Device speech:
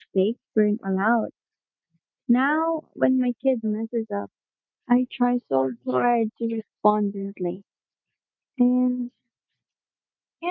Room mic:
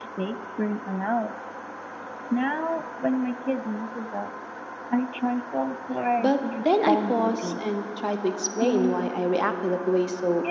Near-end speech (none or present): present